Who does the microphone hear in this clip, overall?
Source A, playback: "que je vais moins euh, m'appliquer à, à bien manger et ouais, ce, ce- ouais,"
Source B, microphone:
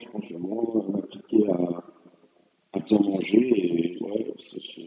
echo only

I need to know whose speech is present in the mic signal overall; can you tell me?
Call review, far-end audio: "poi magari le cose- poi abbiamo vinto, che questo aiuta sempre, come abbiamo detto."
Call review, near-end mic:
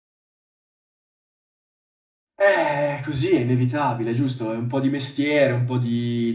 user only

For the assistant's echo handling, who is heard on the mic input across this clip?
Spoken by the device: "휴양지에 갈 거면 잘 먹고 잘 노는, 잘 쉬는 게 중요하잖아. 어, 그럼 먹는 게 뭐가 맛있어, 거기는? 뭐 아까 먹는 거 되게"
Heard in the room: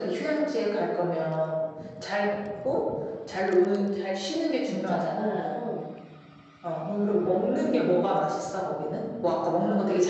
both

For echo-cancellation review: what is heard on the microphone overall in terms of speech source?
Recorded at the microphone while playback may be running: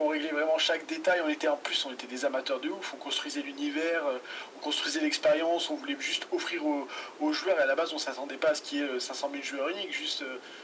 echo only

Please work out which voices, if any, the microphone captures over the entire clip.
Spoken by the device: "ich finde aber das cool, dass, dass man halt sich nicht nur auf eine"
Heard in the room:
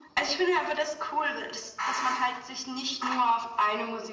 echo only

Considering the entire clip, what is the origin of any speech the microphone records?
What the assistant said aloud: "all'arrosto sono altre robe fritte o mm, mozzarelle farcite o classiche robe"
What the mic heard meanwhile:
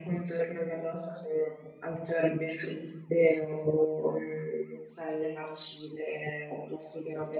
echo only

